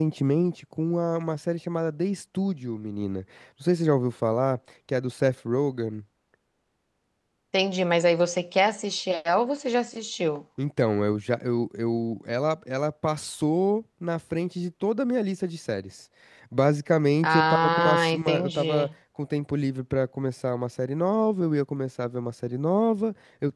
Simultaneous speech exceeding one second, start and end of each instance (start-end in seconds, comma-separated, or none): 17.2-18.9